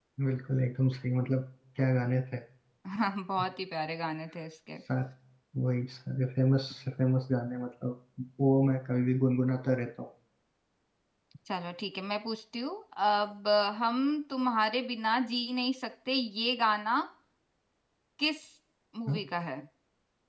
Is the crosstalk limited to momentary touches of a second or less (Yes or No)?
Yes